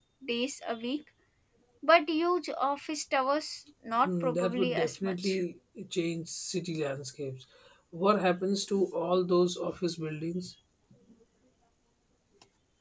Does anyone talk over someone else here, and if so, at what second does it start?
4.0 s

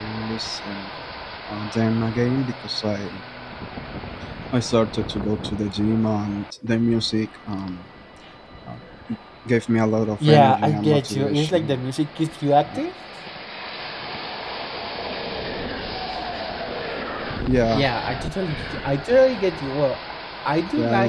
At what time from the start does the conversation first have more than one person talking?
10.2 s

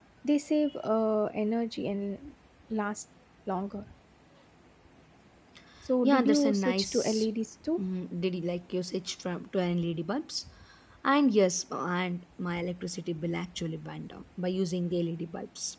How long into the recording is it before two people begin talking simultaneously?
6.0 s

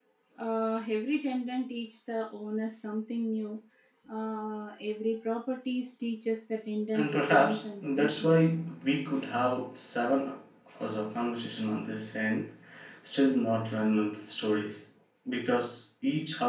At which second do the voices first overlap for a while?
6.9 s

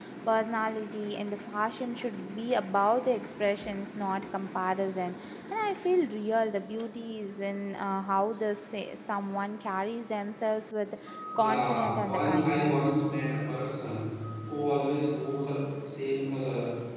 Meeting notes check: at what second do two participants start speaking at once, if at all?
11.4 s

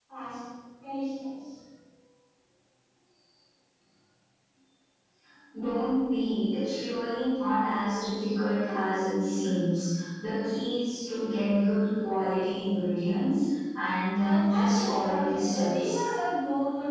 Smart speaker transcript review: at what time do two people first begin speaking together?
14.2 s

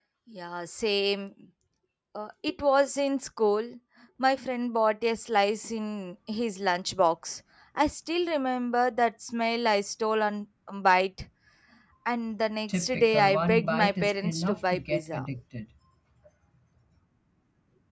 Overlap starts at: 12.7 s

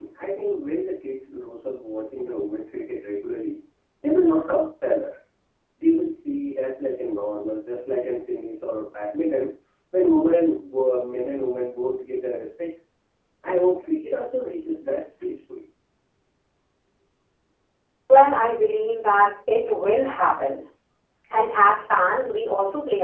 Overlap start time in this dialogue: none

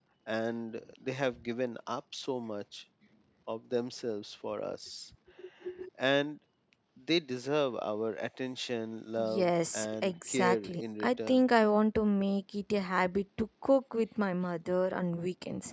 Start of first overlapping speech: 9.2 s

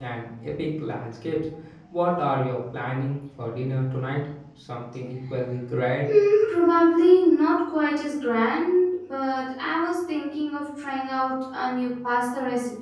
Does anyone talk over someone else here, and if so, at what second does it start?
none

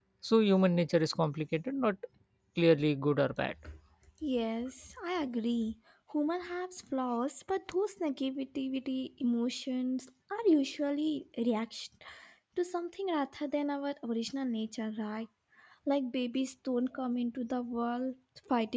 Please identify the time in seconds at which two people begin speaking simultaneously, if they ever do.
none

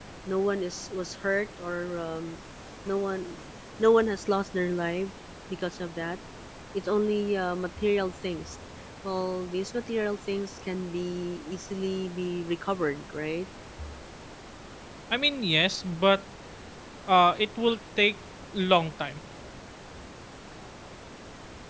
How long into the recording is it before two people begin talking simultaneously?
none

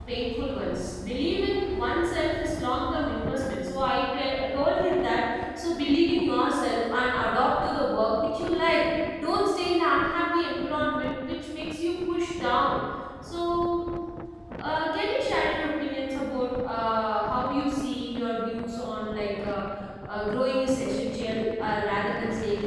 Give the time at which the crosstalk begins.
none

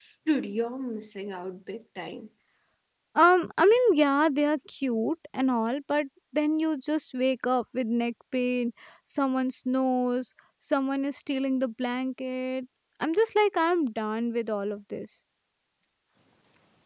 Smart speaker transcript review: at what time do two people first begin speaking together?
none

